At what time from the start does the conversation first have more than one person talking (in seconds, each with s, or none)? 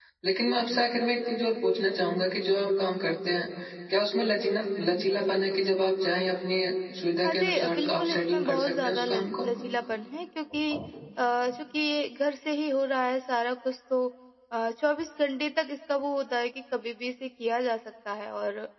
7.2 s